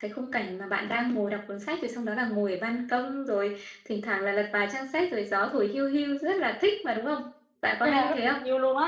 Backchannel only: No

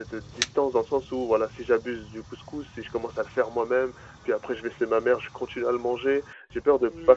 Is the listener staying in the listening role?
Yes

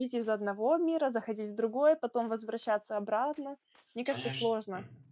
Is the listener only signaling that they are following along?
No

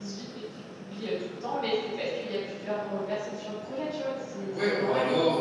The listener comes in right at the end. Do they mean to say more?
Yes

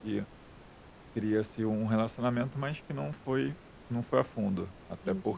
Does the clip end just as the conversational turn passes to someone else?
No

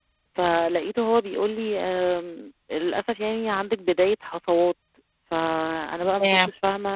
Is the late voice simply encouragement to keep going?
Yes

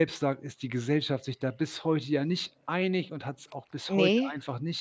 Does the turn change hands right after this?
No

